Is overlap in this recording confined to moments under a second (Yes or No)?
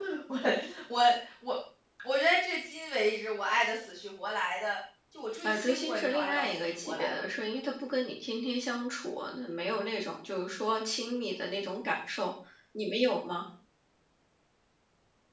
No